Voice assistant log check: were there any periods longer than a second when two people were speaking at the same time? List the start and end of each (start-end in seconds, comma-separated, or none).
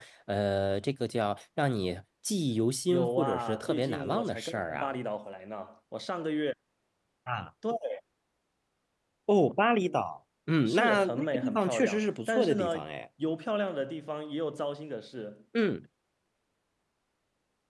2.9-5.0, 10.7-12.7